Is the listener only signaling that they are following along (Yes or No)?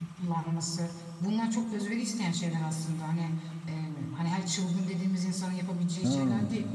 Yes